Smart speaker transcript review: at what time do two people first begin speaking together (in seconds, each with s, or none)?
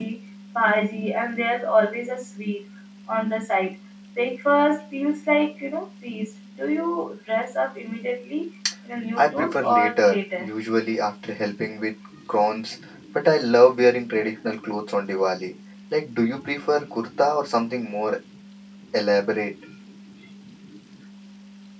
9.2 s